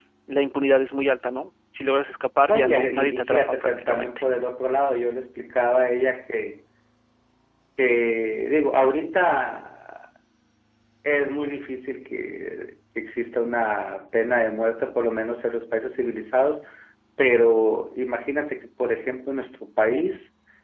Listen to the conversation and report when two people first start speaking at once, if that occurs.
2.5 s

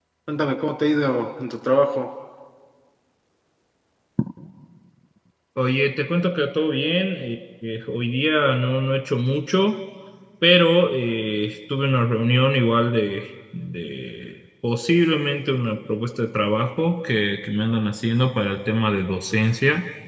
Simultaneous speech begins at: none

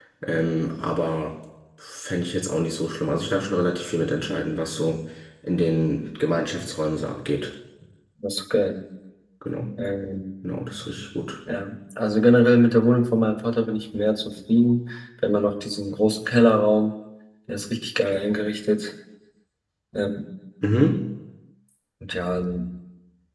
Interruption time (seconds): none

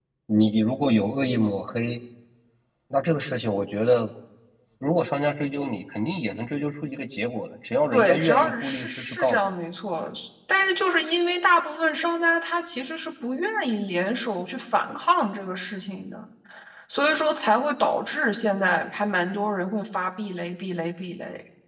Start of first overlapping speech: 7.9 s

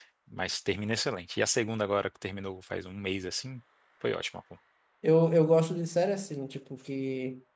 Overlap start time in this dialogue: none

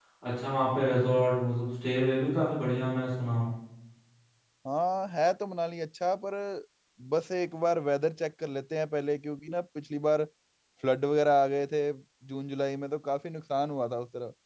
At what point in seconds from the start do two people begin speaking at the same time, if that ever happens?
none

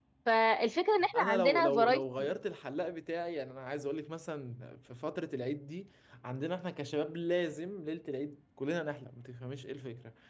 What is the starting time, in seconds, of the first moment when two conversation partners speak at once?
1.1 s

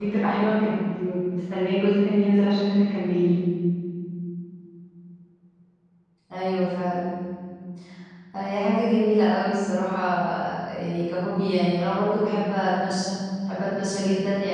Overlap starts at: none

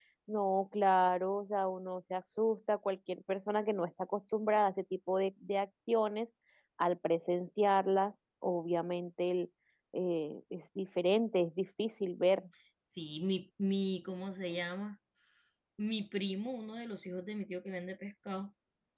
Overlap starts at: none

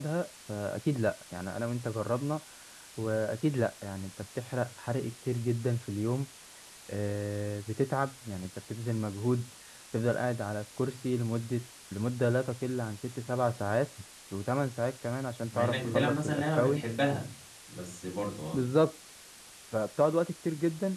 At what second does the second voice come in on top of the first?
15.5 s

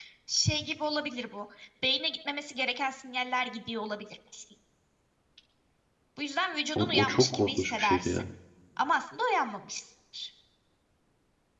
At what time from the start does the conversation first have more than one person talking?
6.8 s

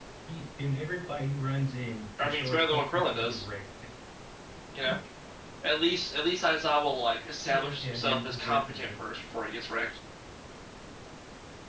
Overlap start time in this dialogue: 2.2 s

